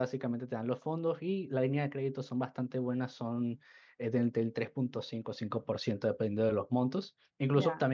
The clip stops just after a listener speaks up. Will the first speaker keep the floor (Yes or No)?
Yes